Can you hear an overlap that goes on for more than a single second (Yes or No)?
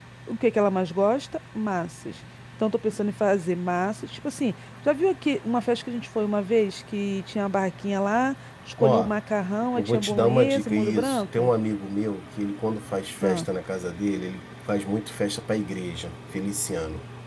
Yes